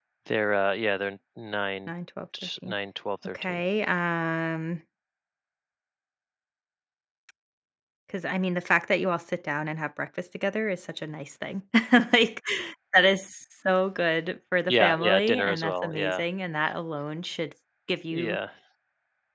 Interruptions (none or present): present